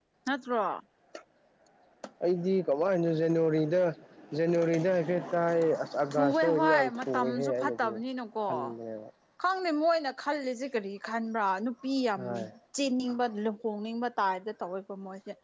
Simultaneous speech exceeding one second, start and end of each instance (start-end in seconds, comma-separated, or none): 6.1-7.9